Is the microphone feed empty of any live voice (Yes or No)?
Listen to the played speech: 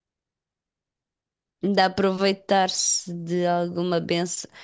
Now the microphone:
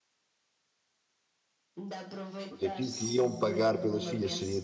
No